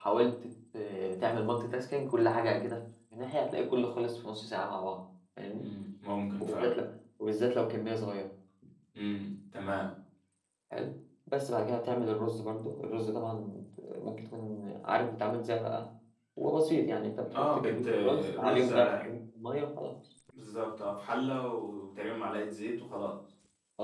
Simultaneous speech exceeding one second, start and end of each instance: 17.3-19.1

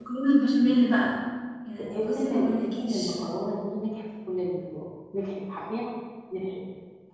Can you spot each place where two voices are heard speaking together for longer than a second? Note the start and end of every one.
1.8-3.1

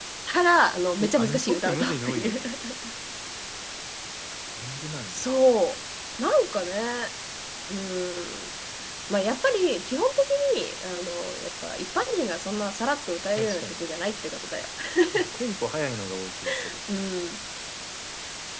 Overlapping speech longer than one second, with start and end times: 1.0-2.4

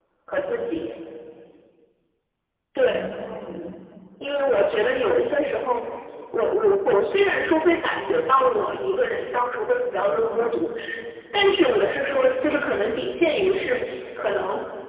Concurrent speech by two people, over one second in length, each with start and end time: none

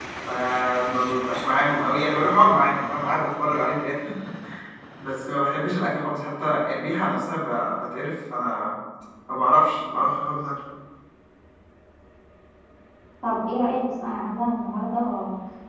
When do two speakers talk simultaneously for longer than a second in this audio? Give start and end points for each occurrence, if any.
none

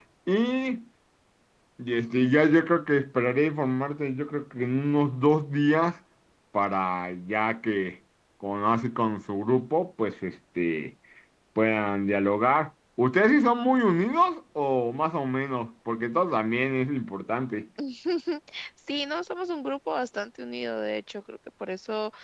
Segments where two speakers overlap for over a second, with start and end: none

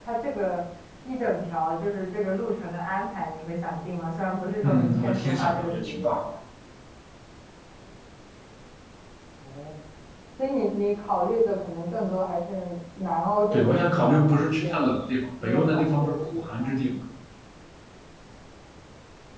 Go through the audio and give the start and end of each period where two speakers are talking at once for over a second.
4.6-6.2, 13.5-14.8, 15.4-16.8

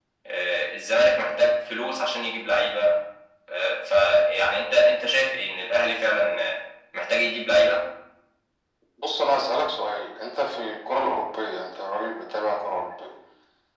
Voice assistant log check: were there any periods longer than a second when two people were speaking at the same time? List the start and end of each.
none

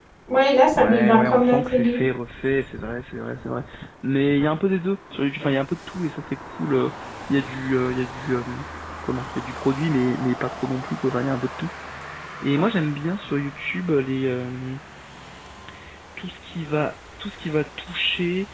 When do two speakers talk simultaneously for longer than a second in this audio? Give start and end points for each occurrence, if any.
0.8-2.0

